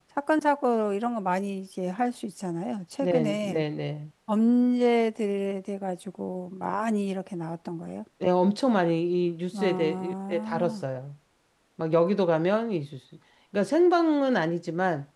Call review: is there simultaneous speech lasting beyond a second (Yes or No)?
Yes